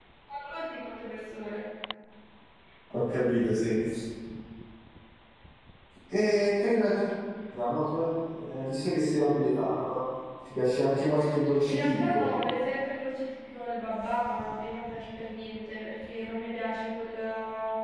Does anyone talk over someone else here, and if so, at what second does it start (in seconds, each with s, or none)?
10.9 s